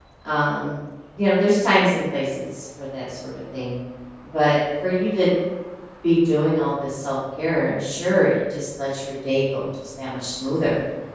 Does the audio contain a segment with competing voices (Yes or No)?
No